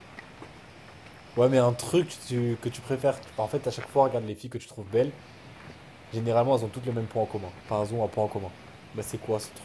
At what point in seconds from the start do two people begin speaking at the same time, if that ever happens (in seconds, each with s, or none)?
none